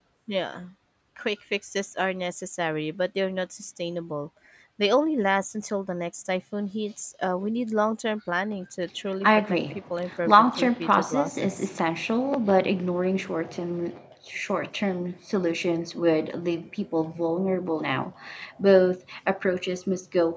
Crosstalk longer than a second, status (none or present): present